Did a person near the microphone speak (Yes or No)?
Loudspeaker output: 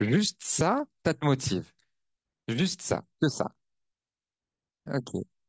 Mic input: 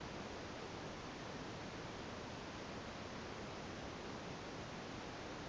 No